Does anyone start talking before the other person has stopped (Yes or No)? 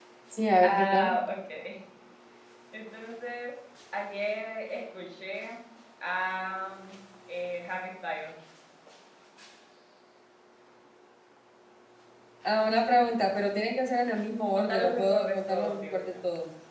Yes